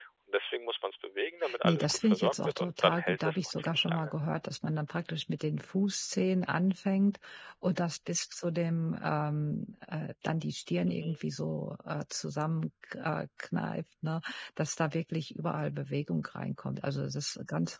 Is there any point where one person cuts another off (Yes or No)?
Yes